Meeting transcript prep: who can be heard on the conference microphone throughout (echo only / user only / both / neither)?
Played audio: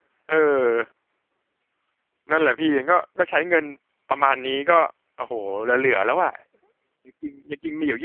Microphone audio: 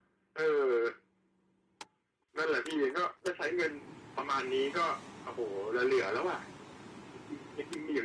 echo only